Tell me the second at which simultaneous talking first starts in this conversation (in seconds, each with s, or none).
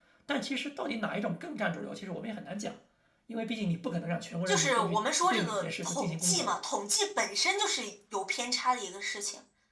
4.5 s